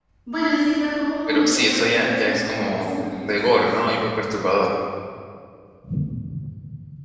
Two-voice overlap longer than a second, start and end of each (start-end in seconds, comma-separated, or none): 1.3-3.6